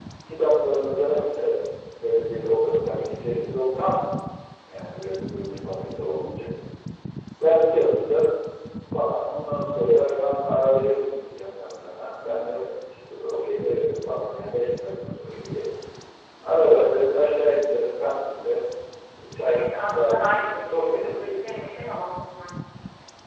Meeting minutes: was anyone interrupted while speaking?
Yes, from 19.5 s

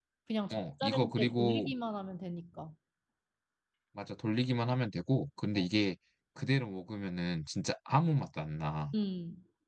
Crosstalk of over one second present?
Yes, from 0.5 s

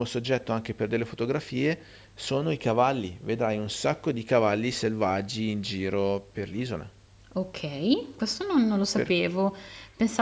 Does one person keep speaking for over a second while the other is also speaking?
No

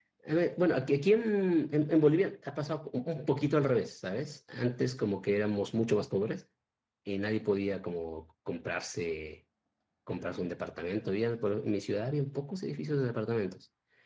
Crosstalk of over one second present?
No

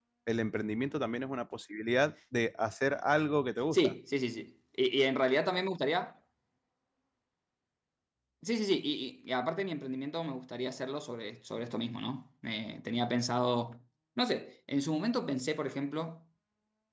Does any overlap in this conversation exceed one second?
No

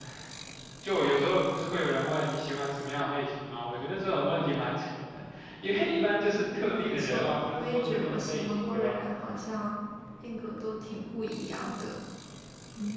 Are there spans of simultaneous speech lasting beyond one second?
Yes, from 6.3 s

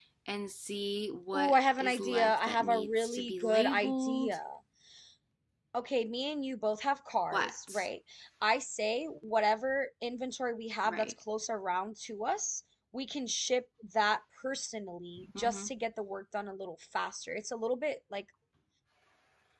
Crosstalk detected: Yes, from 1.3 s

